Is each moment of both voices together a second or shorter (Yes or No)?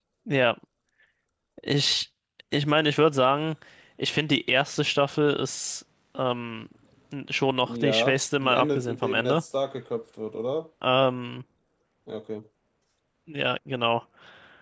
No